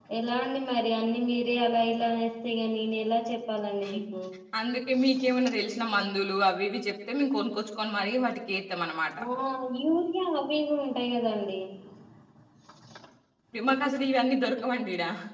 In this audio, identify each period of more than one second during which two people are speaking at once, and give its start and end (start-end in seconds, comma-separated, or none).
none